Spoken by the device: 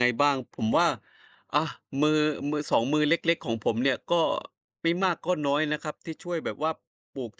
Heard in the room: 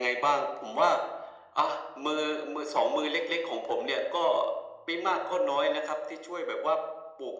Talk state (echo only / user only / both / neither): echo only